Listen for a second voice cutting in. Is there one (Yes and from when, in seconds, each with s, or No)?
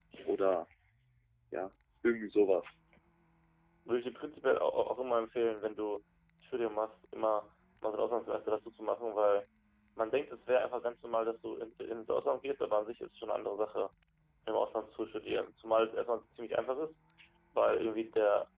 No